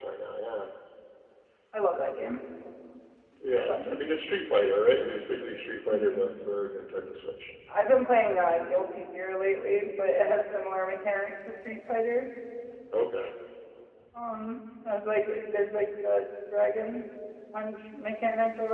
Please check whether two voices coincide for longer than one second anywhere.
No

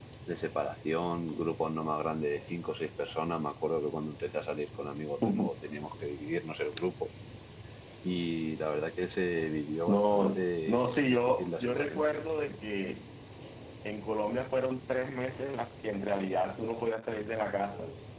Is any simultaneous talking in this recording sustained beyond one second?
Yes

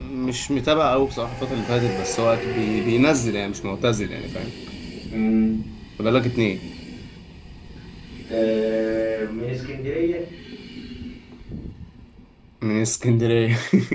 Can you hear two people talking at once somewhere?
No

